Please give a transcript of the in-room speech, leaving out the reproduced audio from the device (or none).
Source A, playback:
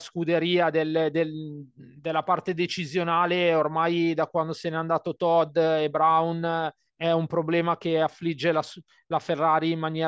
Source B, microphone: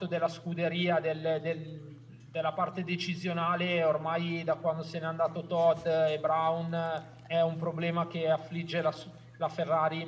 none